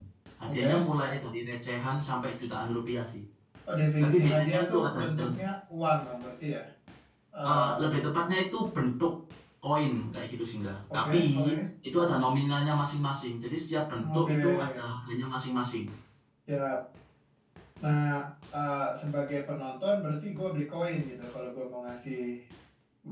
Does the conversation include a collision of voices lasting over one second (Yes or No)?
Yes